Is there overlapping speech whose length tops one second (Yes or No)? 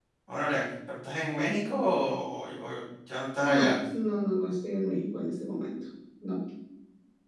No